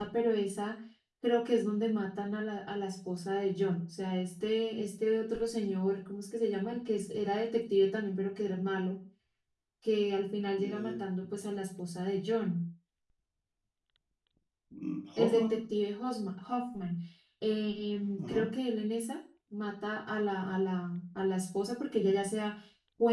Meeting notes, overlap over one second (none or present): none